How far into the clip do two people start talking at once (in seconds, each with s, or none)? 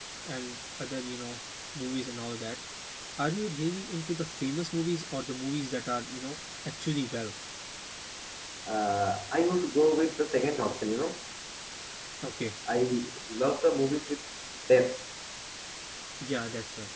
none